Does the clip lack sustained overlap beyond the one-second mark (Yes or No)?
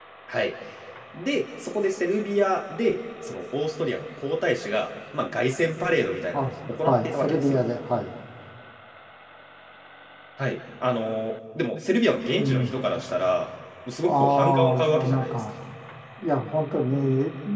No